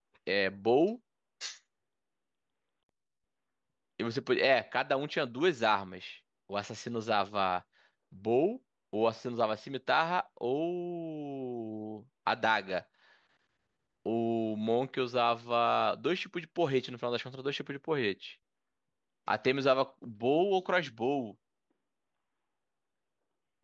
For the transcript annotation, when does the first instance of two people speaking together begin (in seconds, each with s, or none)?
none